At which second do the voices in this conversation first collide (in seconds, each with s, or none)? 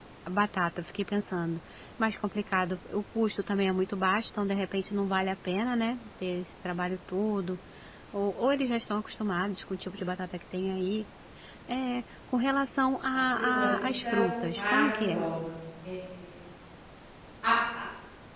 13.1 s